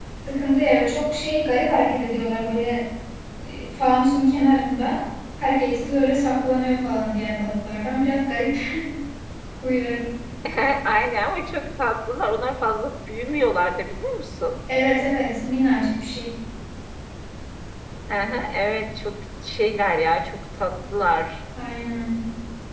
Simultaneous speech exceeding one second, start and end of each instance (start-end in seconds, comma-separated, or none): none